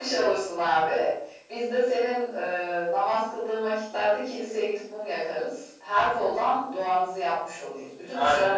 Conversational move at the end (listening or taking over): taking over